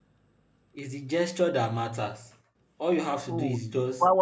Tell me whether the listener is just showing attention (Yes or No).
No